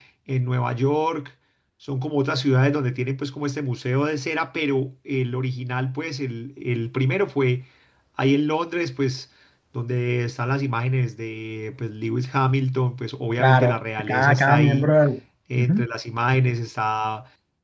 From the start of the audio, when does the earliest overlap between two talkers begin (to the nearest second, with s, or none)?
13 s